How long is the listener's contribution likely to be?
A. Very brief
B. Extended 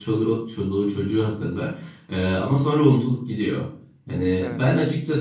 A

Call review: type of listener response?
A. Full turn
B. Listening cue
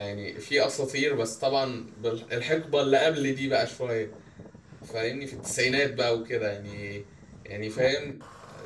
B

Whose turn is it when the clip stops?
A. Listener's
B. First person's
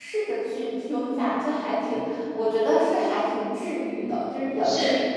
A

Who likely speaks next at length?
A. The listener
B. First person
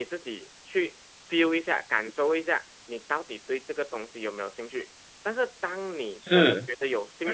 B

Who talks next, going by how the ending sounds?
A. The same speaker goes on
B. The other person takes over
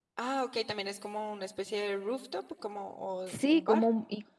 B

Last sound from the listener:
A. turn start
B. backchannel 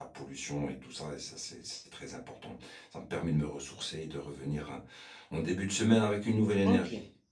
A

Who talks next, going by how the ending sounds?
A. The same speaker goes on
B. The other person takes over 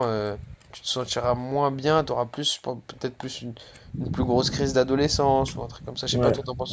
B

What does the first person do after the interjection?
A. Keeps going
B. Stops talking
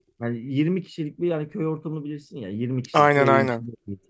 A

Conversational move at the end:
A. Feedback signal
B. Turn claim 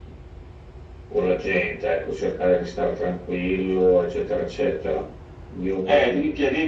B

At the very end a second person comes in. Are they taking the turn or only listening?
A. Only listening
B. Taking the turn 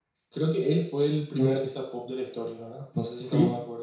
B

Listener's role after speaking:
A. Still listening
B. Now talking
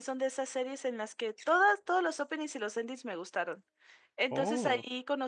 A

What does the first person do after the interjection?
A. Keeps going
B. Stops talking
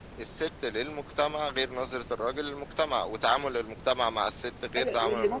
B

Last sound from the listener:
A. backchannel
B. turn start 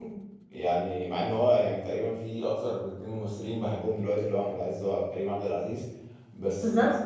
A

